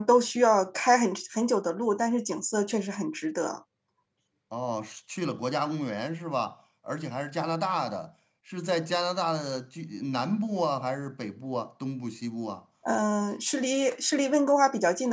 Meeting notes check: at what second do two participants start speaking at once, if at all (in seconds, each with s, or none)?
none